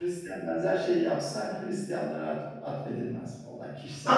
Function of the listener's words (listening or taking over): taking over